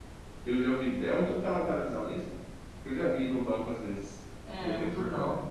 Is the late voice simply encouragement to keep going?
No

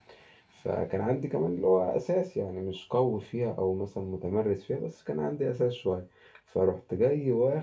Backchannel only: Yes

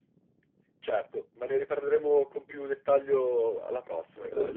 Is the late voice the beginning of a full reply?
Yes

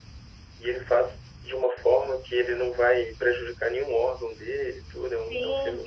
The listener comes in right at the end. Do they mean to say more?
Yes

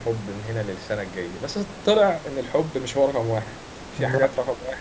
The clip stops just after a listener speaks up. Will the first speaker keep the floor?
Yes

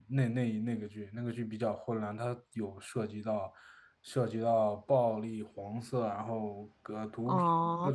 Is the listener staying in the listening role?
No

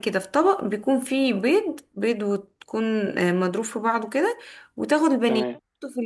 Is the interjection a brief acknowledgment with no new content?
Yes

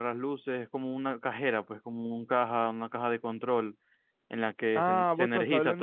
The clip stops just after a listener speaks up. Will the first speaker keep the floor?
No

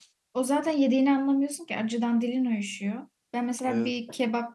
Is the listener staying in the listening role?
Yes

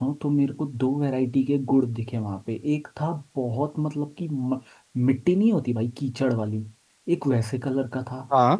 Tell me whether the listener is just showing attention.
Yes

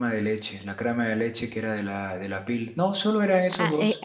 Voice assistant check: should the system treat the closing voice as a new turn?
Yes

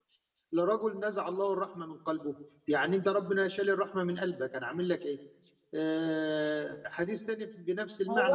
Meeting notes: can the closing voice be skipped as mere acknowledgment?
No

